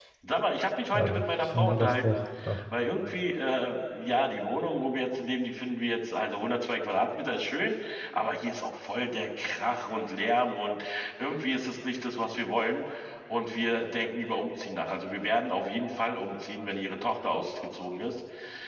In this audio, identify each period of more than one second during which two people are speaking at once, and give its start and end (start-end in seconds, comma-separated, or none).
0.9-2.2